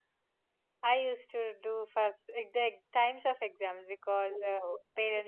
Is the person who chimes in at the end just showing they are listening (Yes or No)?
Yes